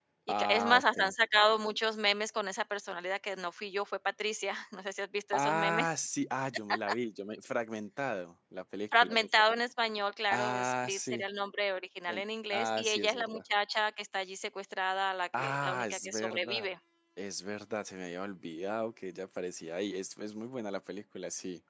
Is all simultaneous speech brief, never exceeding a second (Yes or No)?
No